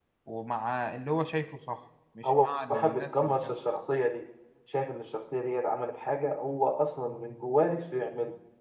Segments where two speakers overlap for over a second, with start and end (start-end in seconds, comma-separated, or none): 2.2-3.5